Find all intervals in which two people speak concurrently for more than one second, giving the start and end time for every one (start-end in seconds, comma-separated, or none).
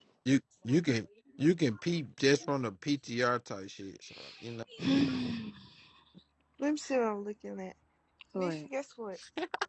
none